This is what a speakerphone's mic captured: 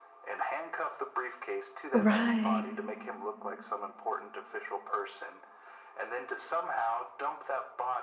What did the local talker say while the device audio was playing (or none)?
Right.